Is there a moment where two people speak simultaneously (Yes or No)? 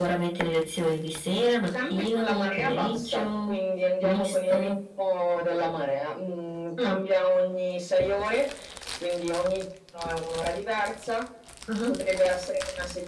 Yes